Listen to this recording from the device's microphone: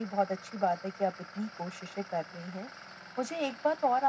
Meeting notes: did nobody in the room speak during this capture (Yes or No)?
Yes